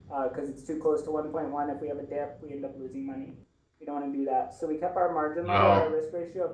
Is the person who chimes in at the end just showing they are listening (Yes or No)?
Yes